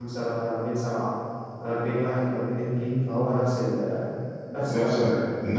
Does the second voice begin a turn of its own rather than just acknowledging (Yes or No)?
Yes